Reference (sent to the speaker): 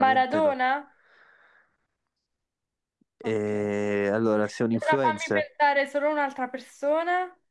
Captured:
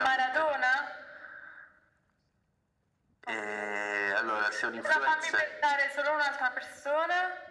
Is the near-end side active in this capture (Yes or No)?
No